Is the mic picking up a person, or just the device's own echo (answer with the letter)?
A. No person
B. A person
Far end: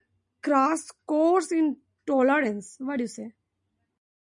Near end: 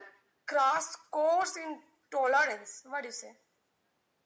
A